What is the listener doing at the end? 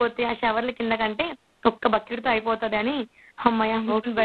taking over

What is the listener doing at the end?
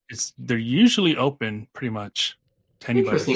taking over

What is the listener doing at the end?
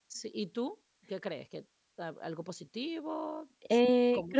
taking over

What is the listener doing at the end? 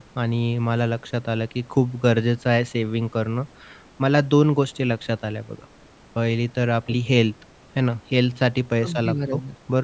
listening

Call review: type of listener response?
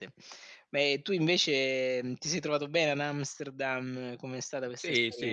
taking over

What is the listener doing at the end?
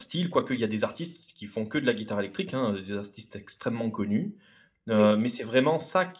listening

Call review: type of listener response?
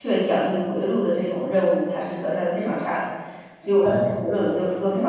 listening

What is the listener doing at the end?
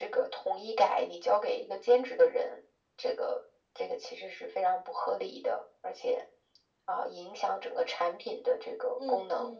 taking over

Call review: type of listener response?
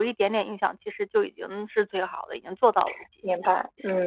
taking over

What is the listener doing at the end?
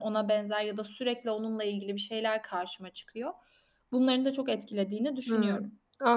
taking over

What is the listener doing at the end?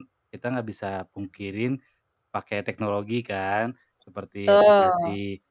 listening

